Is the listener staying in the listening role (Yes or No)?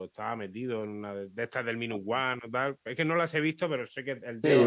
No